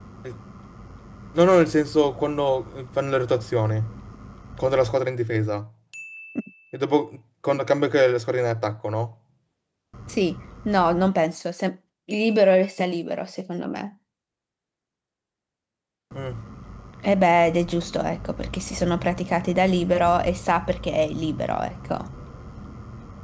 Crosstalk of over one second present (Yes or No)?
No